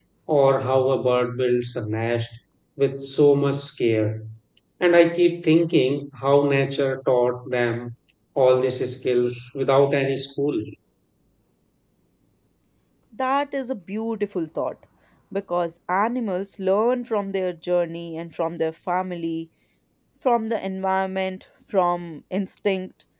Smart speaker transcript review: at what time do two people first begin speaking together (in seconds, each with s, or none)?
none